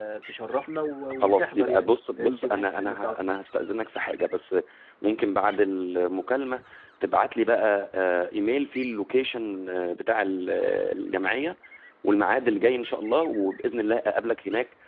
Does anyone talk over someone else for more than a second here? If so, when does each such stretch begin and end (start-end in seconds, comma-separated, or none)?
1.2-3.2